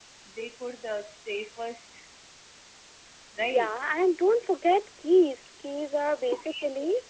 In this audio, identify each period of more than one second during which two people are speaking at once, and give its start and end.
none

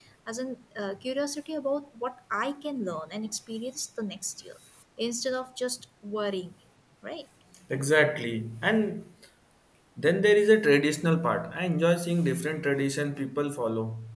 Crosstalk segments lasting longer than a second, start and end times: none

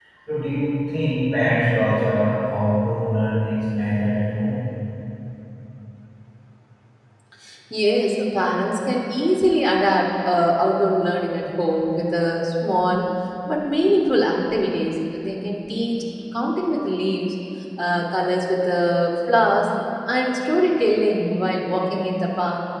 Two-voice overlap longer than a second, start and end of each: none

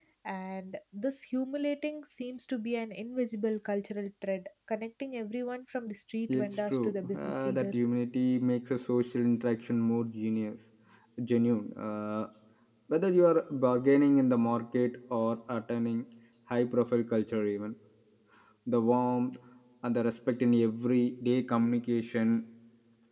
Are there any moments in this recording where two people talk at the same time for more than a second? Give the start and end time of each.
6.3-7.8

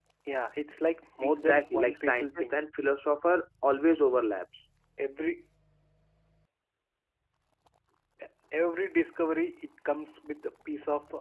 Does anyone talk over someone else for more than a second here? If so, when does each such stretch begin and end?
1.2-2.6

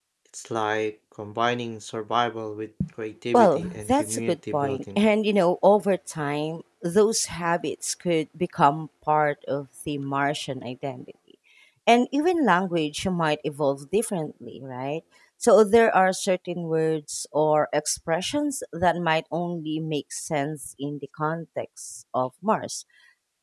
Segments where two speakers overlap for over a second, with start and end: 3.3-5.0

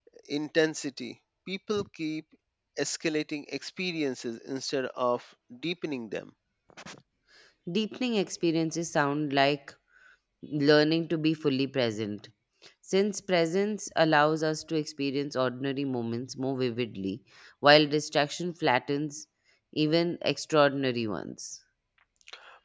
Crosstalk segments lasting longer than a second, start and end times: none

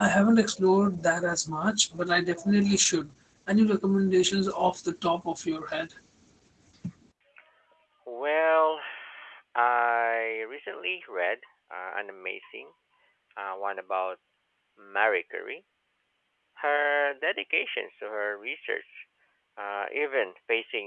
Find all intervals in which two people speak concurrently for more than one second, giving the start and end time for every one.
none

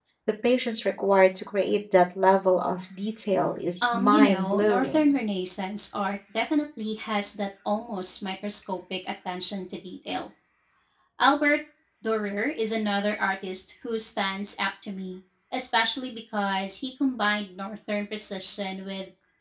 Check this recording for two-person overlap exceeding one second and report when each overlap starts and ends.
3.9-5.2

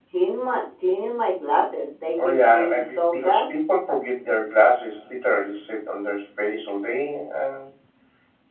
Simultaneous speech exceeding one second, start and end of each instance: 2.2-3.4

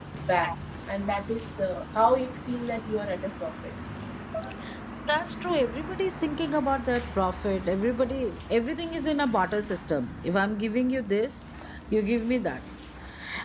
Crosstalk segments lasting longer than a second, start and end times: none

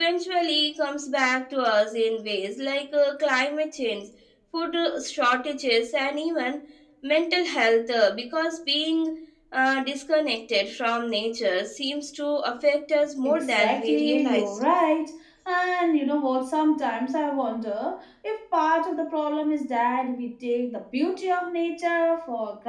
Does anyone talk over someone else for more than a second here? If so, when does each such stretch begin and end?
13.2-14.5

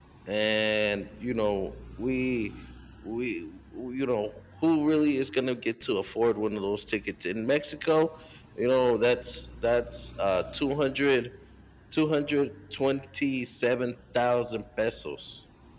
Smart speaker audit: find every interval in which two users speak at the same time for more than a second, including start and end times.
none

